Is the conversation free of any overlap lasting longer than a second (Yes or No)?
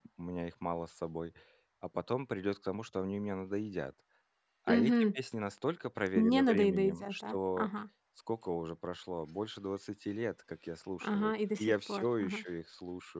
No